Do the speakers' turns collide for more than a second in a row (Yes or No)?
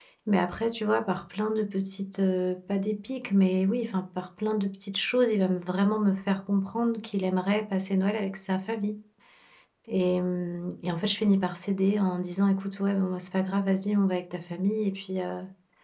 No